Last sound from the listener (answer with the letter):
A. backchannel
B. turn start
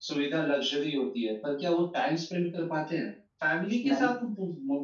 A